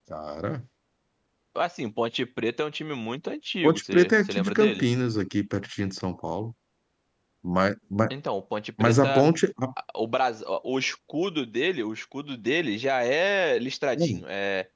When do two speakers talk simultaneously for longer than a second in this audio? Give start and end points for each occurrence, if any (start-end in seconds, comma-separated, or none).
3.6-4.8